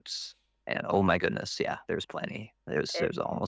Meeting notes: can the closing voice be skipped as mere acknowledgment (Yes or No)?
No